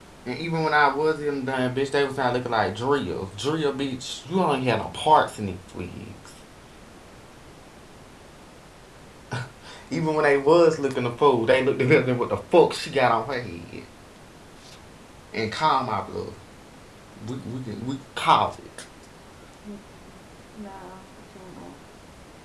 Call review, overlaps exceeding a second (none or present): none